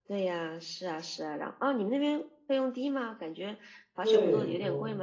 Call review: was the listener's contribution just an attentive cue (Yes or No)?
No